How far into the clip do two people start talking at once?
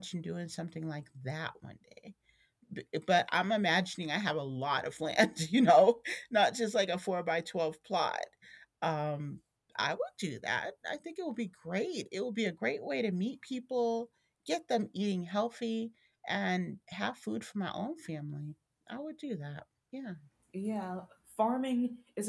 none

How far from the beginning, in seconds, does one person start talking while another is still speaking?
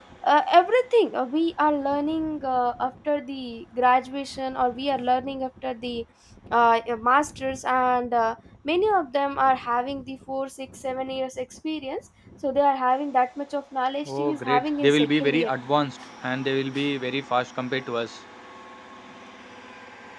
14.1 s

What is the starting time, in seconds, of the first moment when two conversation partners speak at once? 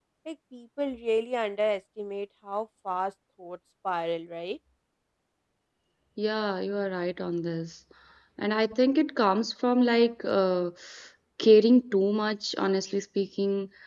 none

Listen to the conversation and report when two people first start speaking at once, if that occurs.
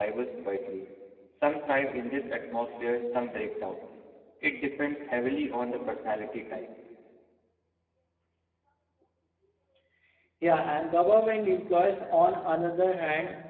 none

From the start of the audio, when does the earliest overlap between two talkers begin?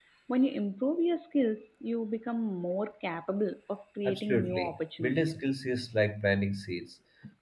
4.0 s

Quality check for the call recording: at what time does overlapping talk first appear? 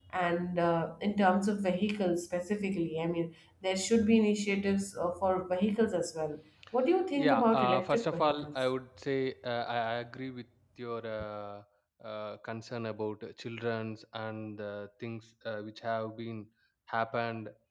7.2 s

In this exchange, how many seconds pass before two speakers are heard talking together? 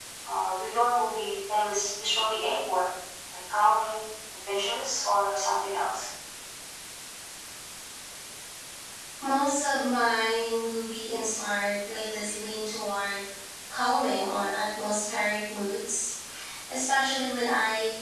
none

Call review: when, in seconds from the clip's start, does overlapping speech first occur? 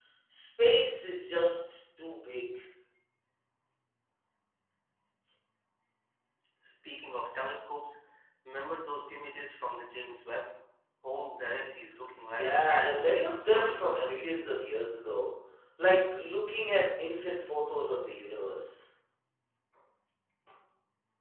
12.3 s

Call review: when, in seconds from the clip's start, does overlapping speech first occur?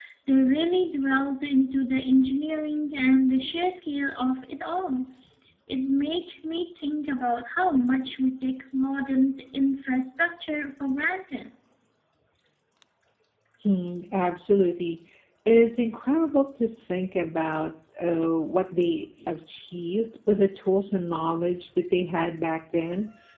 none

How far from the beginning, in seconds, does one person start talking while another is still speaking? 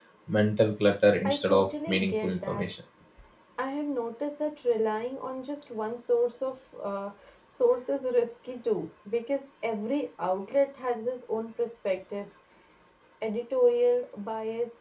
1.2 s

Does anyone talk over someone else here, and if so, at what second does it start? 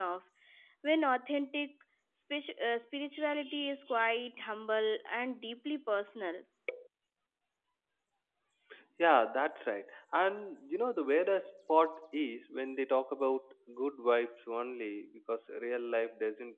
none

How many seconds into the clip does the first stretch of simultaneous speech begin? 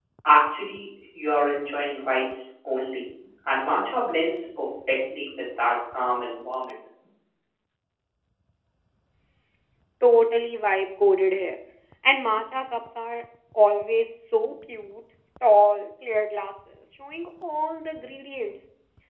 none

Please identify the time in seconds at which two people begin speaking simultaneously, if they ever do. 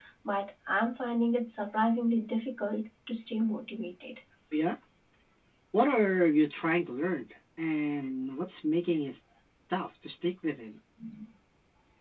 none

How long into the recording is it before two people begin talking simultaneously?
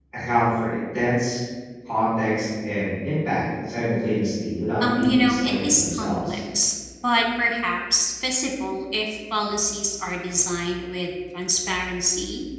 4.8 s

